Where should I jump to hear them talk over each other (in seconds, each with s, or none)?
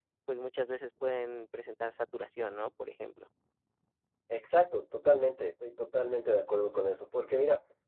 none